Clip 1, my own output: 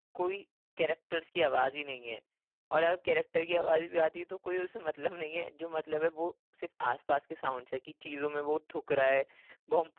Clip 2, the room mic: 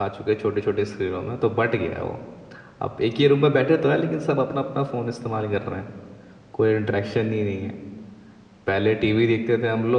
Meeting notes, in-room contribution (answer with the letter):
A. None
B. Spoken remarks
B